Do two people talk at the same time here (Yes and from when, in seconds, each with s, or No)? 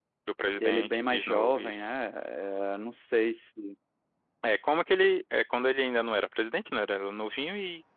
Yes, from 0.6 s